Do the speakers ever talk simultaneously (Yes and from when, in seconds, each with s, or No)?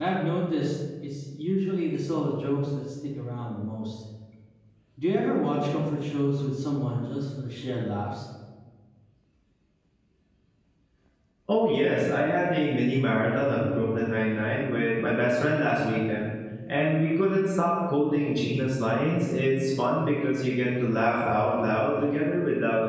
No